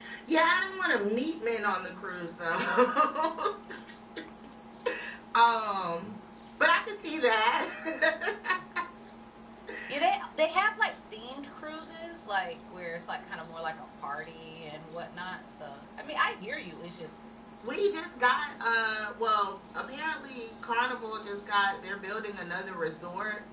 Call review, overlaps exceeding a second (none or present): none